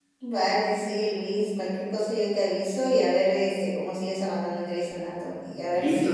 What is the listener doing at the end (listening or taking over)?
taking over